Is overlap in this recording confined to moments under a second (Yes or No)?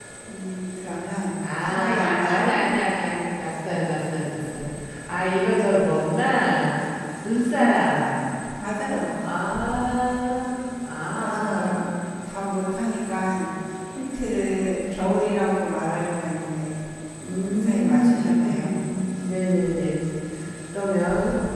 No